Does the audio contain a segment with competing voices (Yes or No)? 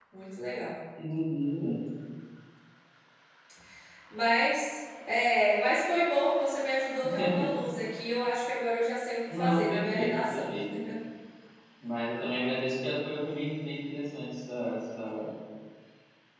Yes